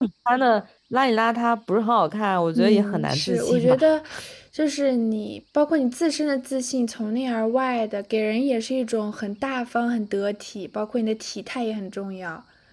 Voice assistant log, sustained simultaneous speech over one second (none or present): present